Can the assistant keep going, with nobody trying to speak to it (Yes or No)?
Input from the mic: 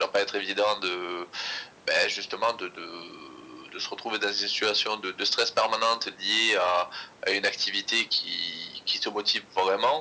Yes